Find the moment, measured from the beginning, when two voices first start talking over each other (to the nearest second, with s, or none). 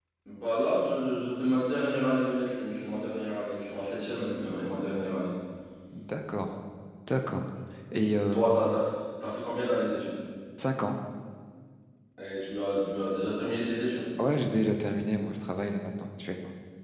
none